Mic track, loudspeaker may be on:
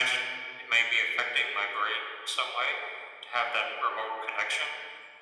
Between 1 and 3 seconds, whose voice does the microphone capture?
echo only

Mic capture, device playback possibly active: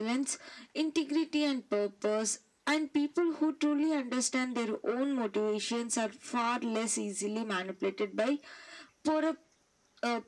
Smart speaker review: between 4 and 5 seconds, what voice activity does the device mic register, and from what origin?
echo only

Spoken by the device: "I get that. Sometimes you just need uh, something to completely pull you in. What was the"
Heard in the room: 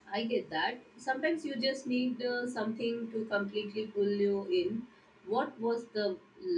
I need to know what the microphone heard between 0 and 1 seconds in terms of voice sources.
echo only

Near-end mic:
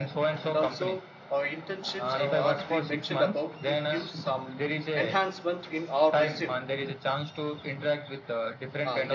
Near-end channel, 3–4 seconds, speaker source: both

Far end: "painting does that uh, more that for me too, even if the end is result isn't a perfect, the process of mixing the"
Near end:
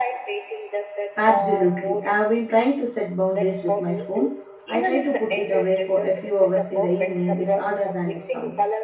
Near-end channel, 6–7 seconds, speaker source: both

